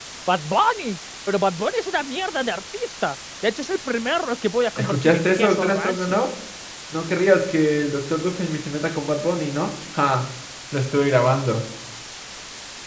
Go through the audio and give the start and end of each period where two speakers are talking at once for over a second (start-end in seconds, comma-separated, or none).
4.8-6.2